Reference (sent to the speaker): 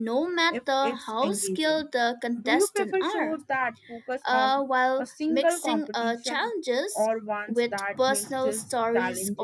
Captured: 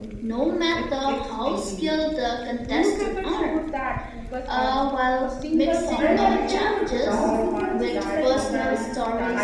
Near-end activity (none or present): present